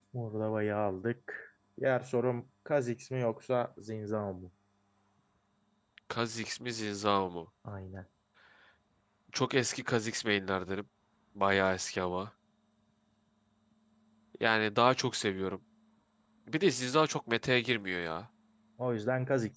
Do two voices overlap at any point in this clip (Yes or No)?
No